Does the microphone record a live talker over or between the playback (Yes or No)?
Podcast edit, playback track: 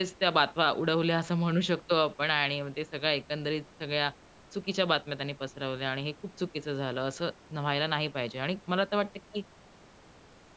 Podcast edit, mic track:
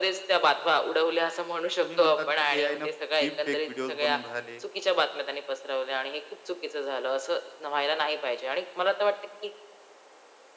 Yes